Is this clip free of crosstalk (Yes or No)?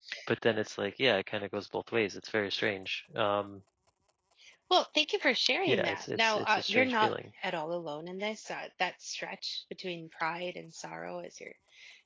No